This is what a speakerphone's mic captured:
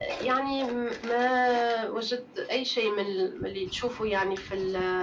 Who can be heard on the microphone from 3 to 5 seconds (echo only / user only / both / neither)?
echo only